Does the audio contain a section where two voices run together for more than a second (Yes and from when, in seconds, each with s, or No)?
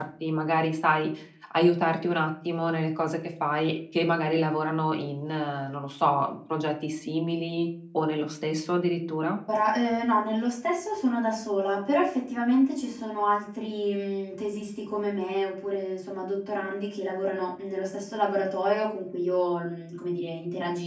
No